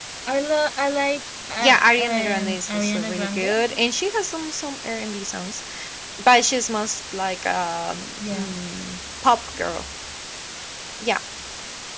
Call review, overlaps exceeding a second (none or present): present